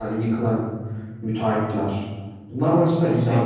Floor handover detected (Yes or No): No